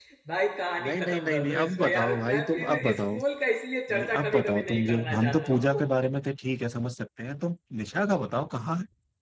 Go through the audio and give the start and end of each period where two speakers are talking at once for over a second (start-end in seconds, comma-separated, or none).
0.8-3.2, 3.9-5.8